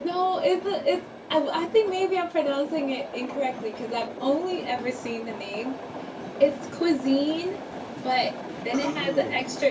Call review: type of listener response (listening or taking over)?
listening